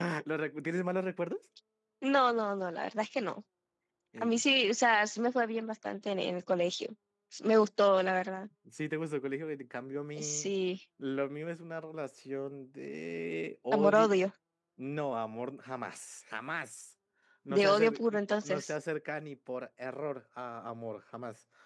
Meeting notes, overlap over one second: present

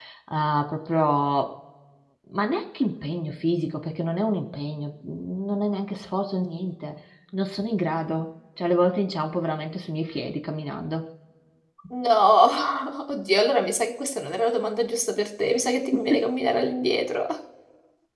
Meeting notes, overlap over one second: none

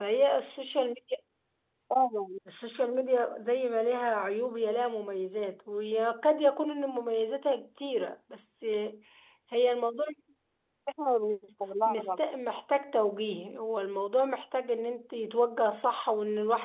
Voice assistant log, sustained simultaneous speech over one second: none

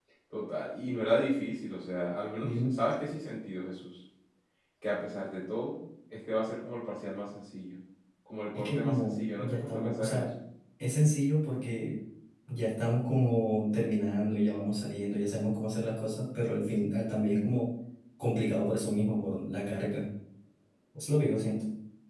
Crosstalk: present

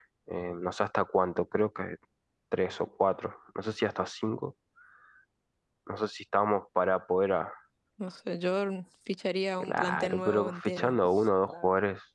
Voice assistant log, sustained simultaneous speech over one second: present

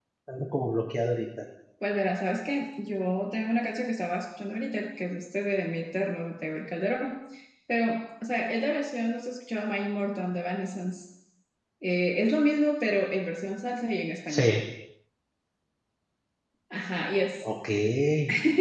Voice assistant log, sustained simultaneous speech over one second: none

